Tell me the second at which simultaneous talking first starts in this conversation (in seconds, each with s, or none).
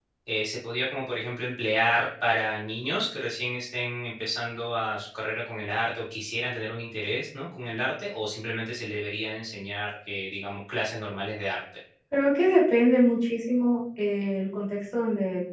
none